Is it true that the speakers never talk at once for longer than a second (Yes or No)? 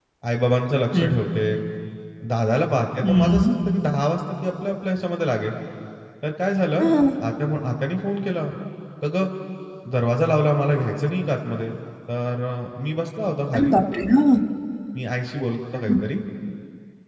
Yes